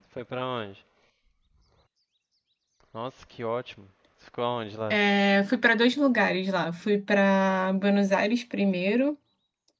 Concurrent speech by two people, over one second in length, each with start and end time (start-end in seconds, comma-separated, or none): none